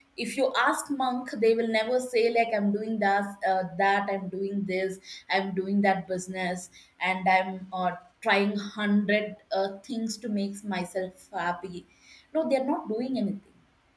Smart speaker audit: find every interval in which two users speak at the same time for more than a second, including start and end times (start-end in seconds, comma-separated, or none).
none